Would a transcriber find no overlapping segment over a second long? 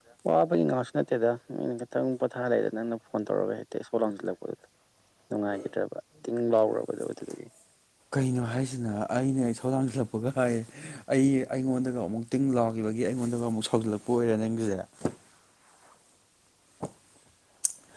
Yes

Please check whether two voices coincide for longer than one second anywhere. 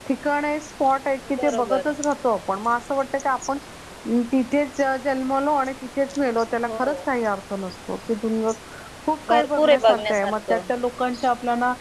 Yes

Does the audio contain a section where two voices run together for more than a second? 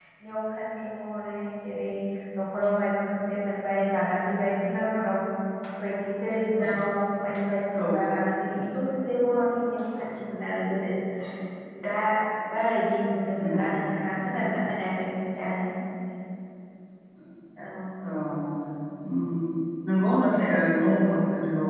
No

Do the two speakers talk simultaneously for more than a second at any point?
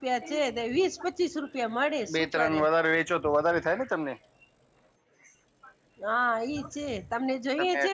No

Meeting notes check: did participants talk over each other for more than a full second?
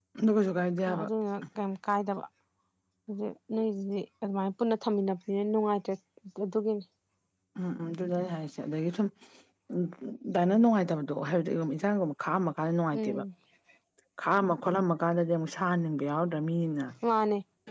No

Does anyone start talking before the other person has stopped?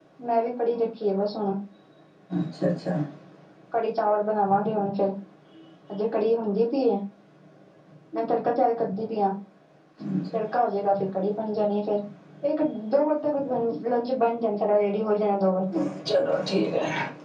No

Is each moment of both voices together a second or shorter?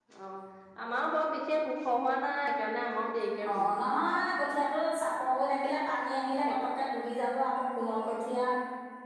Yes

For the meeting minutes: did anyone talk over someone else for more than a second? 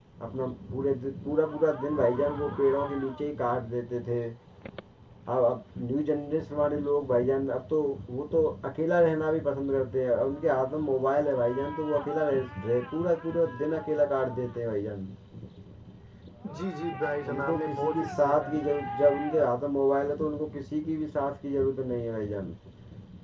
Yes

